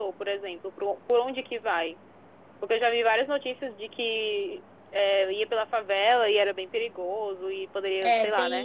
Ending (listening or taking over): taking over